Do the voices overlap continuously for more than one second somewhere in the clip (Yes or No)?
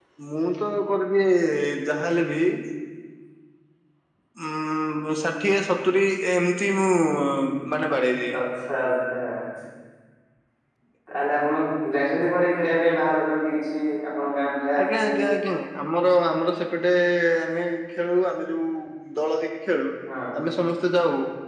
No